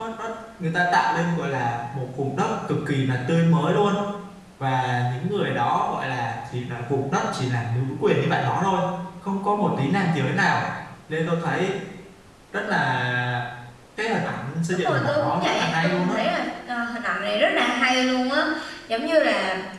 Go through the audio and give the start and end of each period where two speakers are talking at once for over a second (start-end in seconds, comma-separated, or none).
14.7-16.1